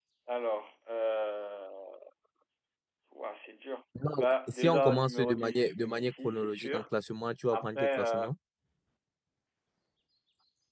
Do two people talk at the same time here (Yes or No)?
Yes